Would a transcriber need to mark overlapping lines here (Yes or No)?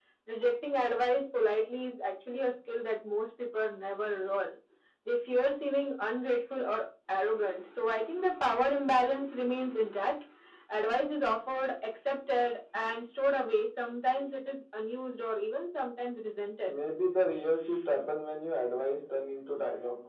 No